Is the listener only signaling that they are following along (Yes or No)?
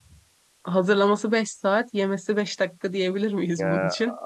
No